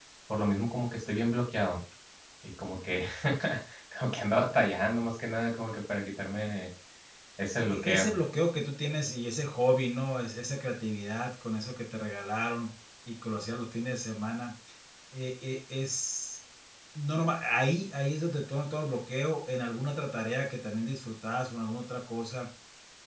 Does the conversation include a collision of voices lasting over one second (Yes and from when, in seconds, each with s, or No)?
No